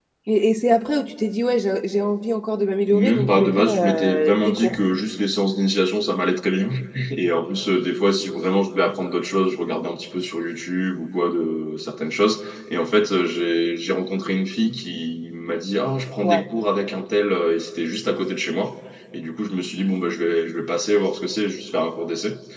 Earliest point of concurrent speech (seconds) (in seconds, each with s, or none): 2.9 s